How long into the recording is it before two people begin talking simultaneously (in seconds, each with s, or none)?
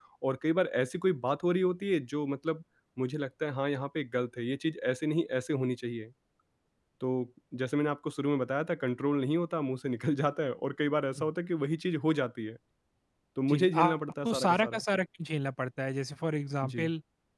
13.5 s